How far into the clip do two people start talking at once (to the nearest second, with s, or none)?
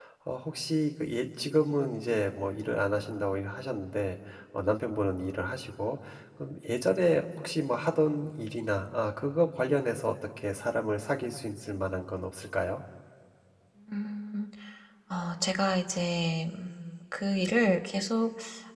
none